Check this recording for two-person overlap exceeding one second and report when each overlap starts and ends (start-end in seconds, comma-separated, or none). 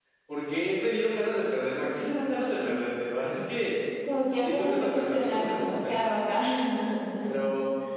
4.4-6.1